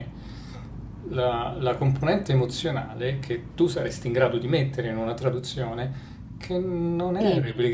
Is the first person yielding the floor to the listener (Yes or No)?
No